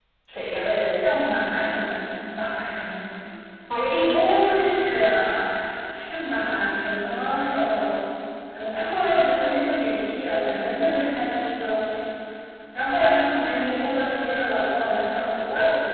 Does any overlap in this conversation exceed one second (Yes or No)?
No